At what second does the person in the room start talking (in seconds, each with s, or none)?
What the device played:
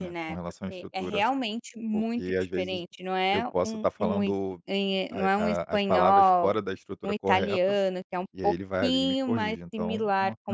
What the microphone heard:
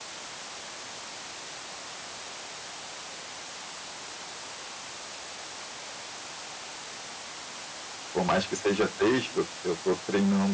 8.1 s